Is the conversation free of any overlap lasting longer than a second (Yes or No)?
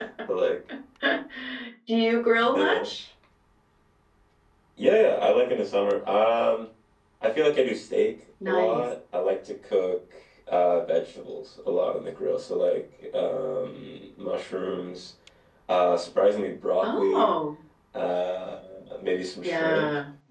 Yes